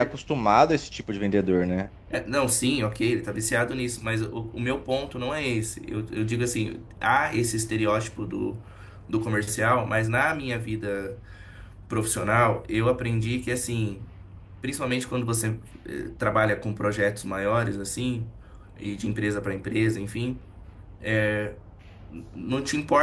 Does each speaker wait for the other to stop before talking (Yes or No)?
Yes